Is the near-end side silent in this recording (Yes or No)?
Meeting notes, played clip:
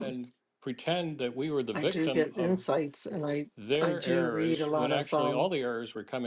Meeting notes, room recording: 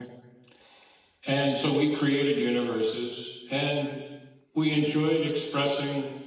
No